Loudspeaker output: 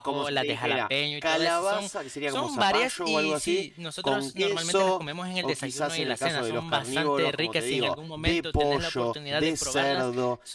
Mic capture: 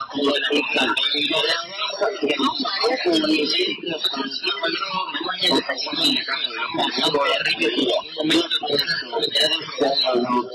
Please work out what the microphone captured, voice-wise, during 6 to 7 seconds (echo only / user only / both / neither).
echo only